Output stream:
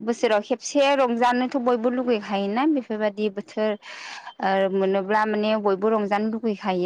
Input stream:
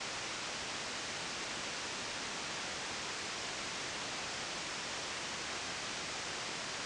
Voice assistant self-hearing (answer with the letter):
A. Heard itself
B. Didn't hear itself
B